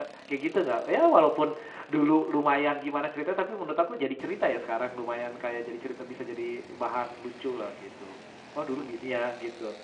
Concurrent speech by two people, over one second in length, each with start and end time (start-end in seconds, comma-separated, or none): none